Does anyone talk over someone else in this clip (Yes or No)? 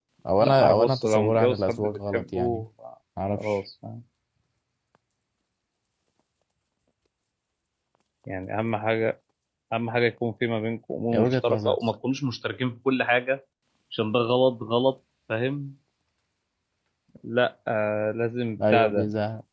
Yes